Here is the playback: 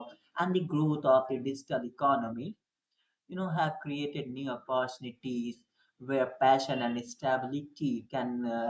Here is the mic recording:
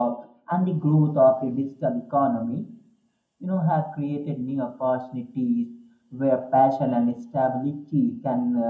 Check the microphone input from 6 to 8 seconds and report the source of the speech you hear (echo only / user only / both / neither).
echo only